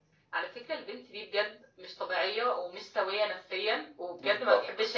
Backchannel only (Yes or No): Yes